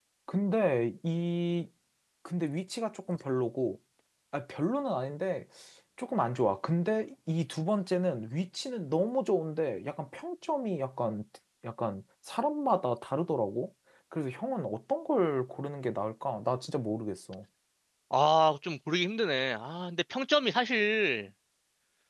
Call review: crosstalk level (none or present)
none